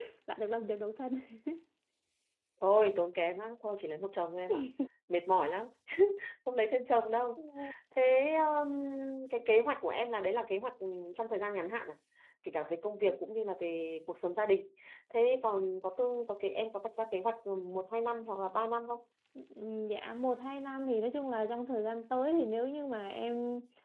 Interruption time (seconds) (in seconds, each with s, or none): none